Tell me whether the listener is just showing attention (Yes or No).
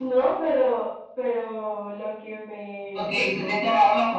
No